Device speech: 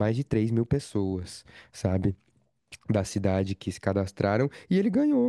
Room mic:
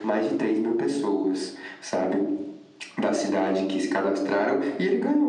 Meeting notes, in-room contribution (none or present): none